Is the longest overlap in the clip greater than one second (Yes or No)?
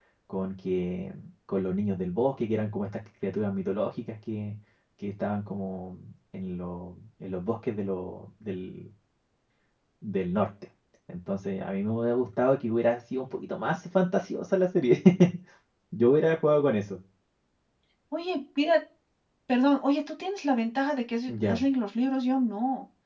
No